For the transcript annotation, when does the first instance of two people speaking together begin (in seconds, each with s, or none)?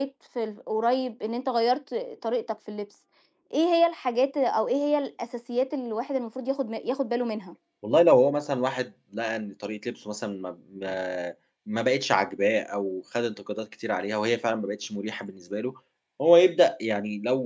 none